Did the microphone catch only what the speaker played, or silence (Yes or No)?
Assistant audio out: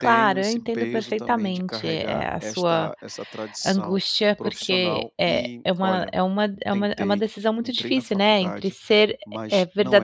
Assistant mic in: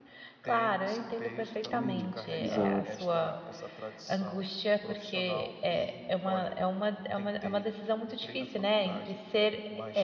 No